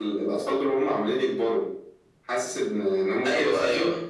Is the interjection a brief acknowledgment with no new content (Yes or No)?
Yes